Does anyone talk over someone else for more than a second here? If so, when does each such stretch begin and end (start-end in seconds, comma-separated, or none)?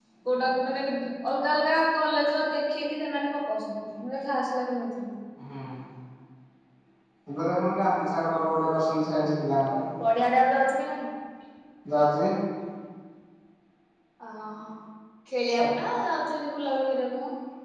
none